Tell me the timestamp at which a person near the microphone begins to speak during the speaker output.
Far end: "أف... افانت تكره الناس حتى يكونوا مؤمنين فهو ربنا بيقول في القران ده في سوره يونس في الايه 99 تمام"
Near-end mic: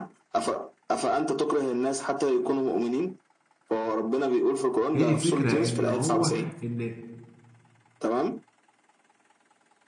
4.9 s

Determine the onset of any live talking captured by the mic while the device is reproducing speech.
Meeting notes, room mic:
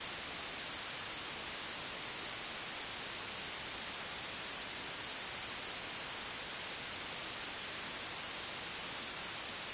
none

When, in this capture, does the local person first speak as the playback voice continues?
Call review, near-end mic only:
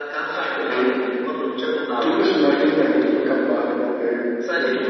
none

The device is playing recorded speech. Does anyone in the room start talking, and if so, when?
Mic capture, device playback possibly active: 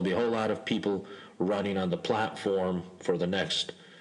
none

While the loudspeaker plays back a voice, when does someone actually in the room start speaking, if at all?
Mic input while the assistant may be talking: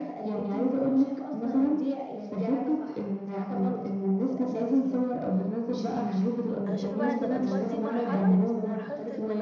6.7 s

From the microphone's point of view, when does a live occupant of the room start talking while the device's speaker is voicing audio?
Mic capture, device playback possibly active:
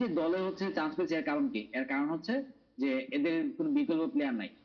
none

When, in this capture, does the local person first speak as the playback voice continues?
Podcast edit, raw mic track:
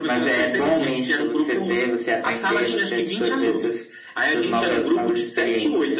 none

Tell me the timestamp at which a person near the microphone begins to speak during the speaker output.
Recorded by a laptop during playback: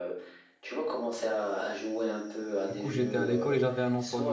2.7 s

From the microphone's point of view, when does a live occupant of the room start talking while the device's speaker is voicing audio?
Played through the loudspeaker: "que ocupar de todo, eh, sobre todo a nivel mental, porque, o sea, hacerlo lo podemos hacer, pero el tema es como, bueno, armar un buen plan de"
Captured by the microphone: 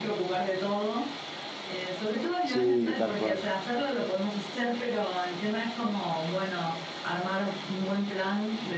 2.5 s

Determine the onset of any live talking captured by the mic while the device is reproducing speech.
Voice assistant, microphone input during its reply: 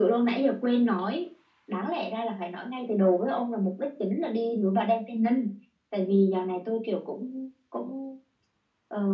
none

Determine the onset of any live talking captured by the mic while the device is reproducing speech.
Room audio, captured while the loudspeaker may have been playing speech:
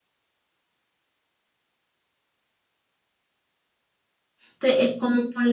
4.5 s

